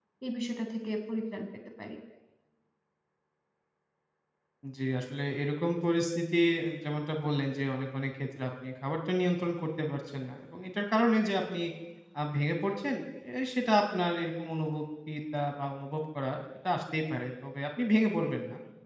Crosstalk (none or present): none